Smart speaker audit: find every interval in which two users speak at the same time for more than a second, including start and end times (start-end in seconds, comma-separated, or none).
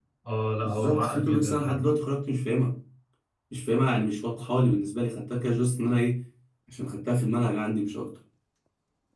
0.6-1.8